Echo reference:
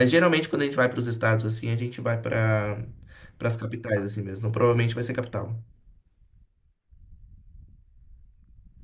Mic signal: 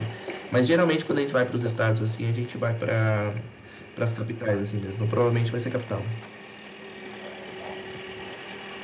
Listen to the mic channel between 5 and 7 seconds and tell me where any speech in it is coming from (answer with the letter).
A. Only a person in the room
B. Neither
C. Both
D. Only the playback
D